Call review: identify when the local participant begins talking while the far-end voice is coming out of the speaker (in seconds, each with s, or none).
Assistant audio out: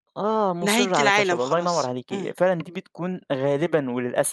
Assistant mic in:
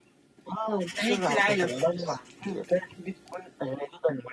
none